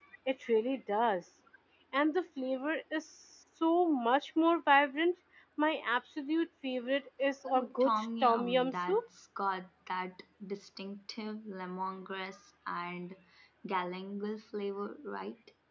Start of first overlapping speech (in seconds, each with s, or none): 7.4 s